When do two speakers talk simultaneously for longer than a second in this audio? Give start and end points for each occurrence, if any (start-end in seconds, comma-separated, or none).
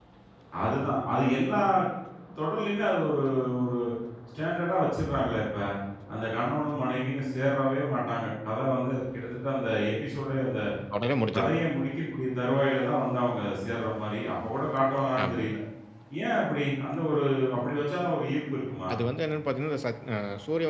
none